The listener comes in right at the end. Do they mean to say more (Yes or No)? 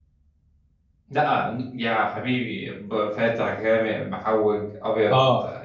Yes